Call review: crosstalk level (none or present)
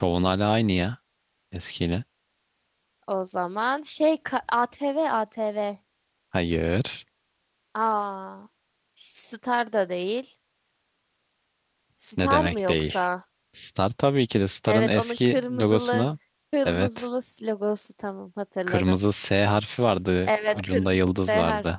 present